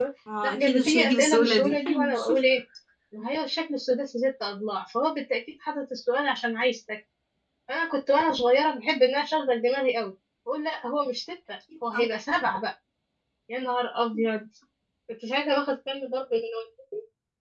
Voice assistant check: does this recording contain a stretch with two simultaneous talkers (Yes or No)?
Yes